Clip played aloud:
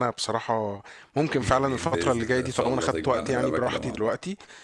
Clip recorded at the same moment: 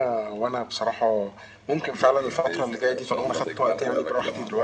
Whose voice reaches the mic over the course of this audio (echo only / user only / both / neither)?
echo only